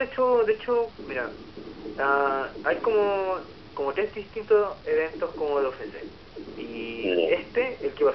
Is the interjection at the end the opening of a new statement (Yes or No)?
No